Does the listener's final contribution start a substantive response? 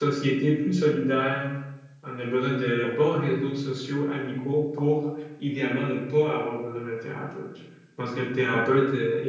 No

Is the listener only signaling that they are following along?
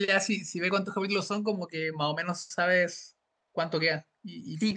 No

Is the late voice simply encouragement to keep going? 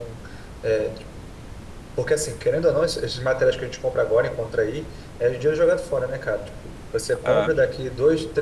Yes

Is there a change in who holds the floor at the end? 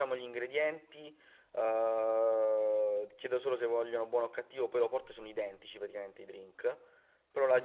No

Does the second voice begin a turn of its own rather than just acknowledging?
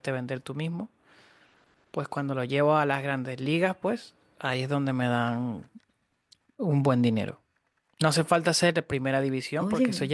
No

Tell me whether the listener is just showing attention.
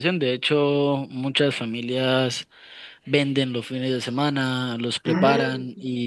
Yes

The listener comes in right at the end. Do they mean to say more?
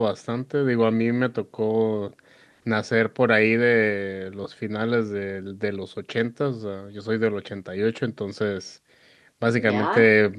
No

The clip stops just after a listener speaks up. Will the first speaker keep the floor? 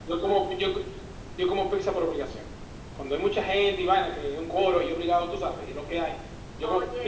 Yes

